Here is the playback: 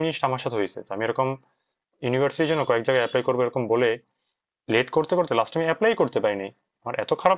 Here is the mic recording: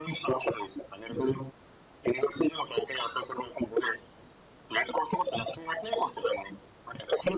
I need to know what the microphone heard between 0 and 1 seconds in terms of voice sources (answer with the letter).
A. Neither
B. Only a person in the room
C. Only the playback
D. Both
C